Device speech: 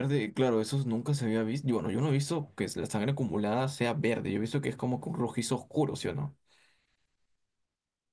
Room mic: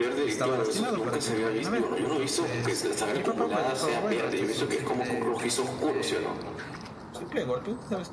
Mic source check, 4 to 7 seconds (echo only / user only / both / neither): both